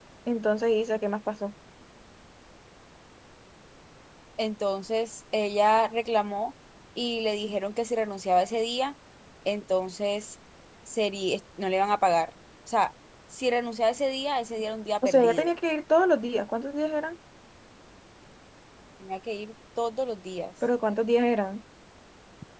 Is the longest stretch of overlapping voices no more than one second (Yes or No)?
Yes